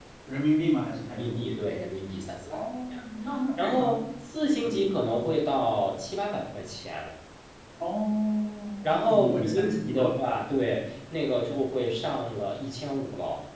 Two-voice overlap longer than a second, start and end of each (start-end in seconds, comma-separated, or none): 8.8-10.1